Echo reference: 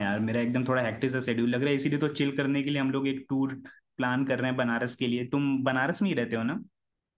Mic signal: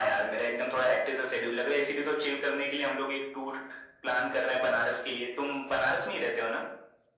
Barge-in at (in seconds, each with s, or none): none